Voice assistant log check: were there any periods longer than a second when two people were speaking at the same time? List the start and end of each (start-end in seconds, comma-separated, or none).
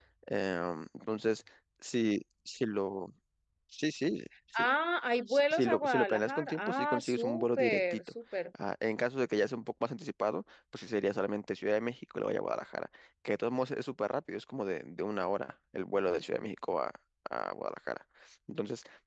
5.3-8.0